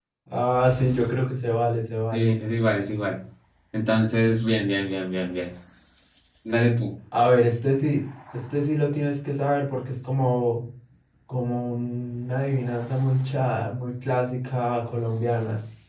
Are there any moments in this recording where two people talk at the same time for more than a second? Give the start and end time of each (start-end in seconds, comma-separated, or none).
none